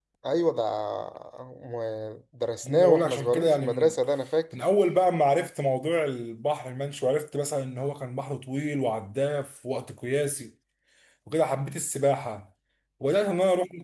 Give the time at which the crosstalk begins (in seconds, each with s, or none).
2.6 s